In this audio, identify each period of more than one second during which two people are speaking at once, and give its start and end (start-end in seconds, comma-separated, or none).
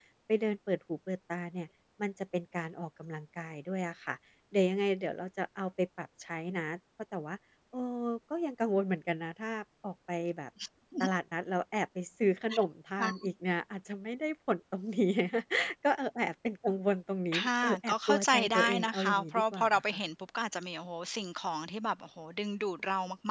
17.4-20.0